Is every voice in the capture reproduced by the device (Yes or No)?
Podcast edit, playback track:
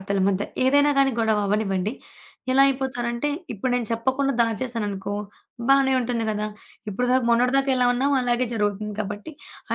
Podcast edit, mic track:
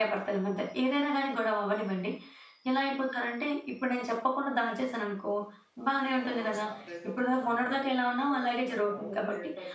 No